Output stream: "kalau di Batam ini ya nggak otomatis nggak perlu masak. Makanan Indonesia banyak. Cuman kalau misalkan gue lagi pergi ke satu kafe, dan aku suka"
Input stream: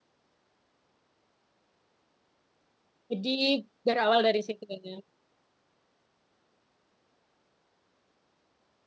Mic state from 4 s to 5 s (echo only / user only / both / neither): user only